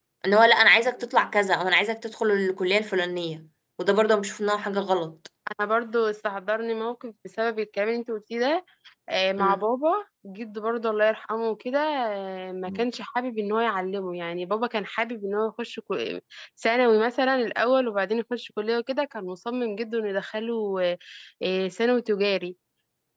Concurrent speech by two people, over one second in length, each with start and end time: none

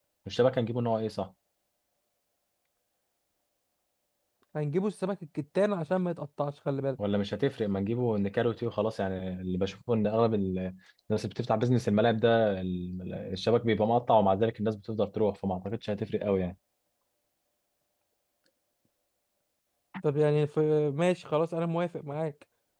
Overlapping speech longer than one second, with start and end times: none

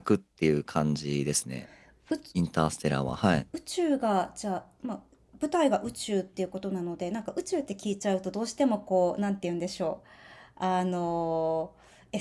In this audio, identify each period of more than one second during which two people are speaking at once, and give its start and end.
none

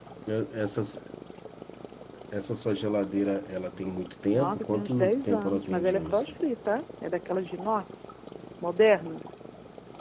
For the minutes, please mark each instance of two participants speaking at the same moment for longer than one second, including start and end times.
4.3-6.3

